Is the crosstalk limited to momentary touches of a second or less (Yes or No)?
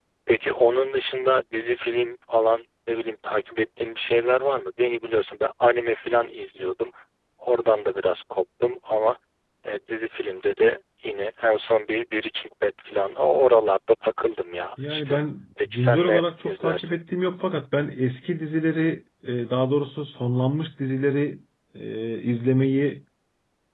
No